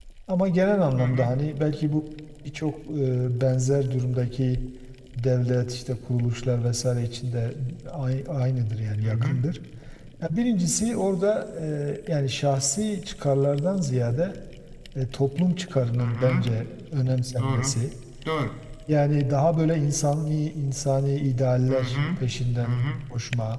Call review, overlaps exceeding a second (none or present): none